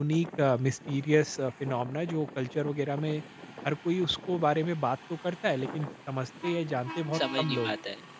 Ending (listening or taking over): taking over